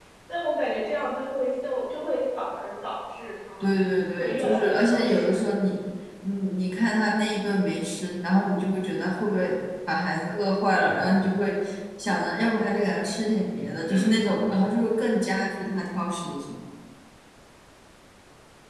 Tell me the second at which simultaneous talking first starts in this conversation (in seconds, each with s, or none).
4.2 s